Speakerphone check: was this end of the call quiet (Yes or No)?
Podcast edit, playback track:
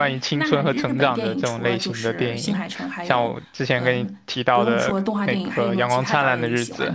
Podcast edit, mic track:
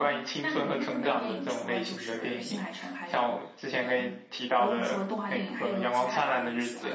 Yes